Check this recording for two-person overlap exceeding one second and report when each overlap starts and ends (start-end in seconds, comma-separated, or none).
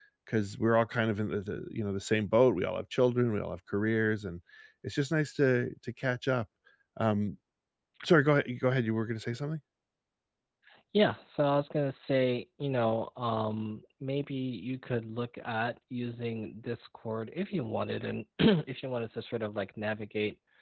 none